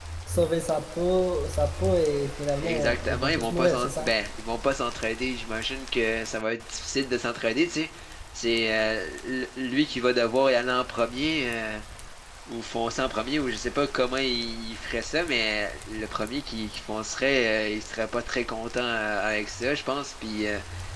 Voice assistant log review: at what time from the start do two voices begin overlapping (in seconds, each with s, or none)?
2.6 s